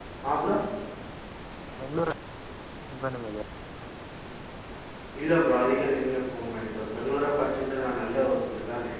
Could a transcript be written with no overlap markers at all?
Yes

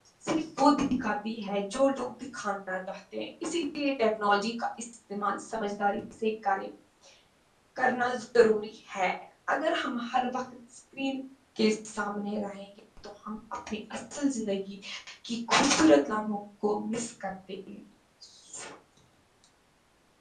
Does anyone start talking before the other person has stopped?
No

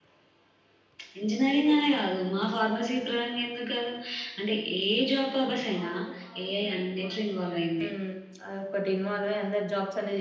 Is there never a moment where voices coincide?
Yes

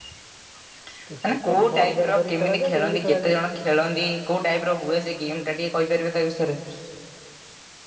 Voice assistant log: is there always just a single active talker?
No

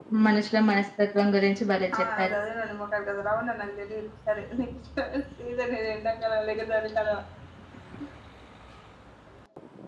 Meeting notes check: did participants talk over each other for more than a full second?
No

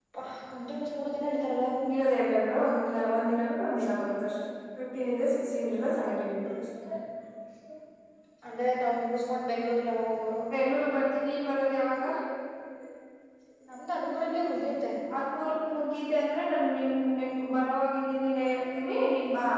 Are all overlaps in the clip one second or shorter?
Yes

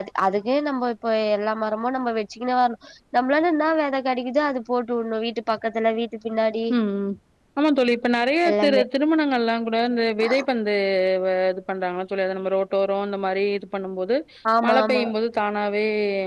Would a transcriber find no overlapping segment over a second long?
Yes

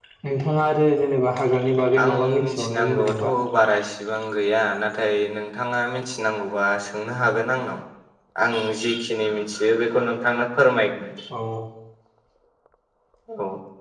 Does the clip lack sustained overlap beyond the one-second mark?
No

